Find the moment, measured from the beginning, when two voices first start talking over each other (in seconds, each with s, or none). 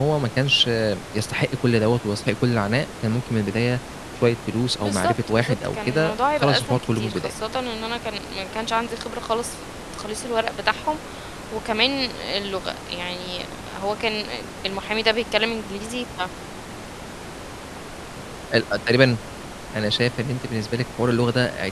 4.8 s